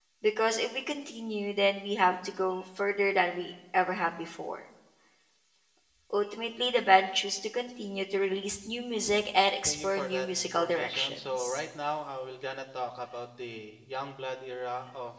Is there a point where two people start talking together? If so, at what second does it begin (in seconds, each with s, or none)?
9.7 s